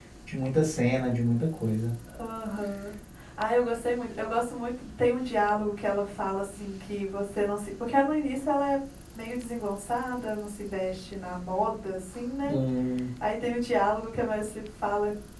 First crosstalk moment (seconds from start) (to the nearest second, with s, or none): none